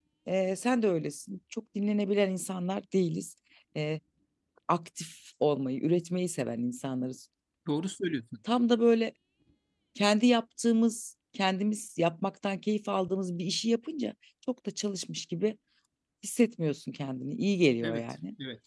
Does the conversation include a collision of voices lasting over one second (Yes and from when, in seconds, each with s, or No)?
No